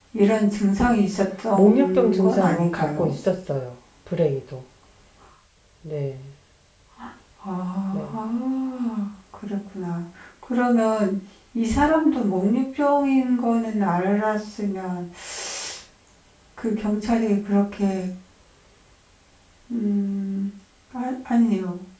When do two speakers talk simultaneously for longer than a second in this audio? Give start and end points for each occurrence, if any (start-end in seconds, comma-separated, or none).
1.6-3.1